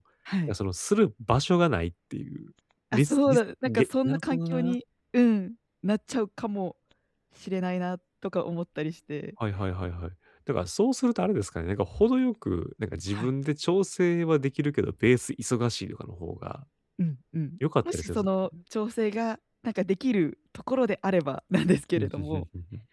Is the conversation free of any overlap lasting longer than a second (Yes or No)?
No